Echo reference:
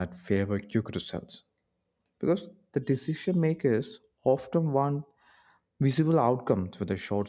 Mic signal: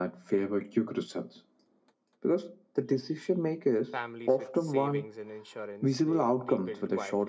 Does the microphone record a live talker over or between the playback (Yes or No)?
Yes